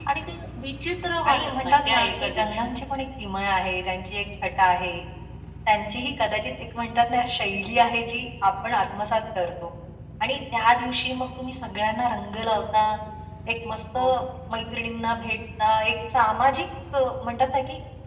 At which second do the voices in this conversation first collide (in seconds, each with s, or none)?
1.2 s